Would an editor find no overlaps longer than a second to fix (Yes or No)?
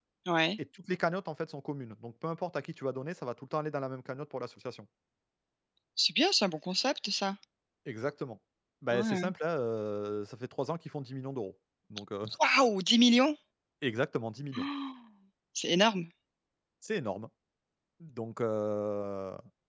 Yes